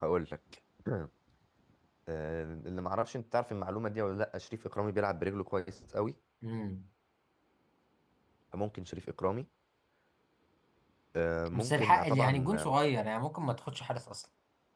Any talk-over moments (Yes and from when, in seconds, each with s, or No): Yes, from 11.5 s